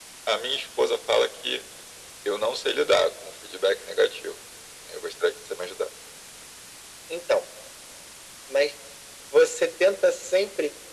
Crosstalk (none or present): none